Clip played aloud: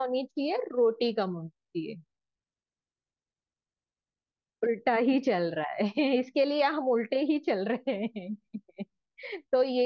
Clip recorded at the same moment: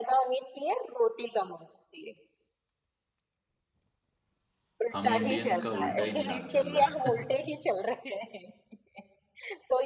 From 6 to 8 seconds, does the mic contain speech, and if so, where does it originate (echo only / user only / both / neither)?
both